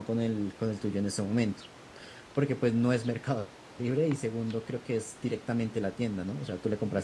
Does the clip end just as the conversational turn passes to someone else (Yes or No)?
Yes